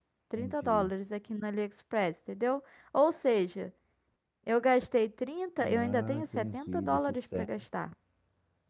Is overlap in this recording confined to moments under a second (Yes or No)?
No